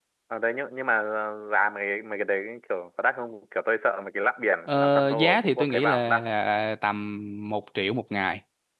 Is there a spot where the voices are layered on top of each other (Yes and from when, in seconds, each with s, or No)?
Yes, from 4.7 s